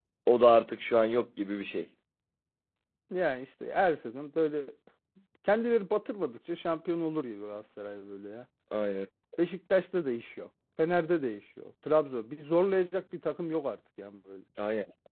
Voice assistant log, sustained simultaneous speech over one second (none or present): none